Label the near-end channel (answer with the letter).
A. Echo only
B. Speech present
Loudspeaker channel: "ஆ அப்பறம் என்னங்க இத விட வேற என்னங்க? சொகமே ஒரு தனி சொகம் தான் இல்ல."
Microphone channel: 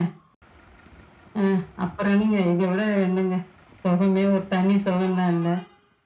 A